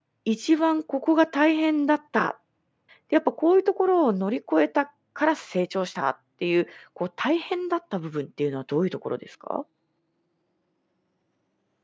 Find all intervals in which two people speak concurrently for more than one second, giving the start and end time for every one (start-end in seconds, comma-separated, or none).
none